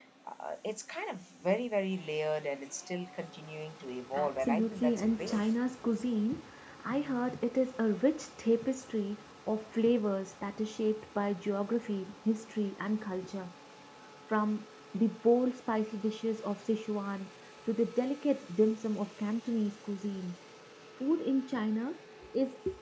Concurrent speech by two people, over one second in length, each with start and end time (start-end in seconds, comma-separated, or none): 4.1-5.4